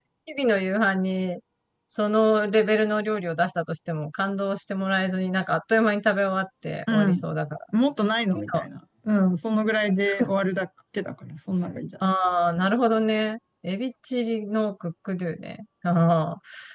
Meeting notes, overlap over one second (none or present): none